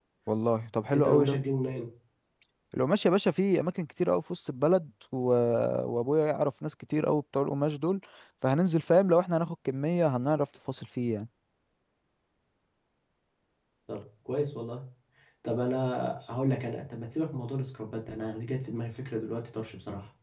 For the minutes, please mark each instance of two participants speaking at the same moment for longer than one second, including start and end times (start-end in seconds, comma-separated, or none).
none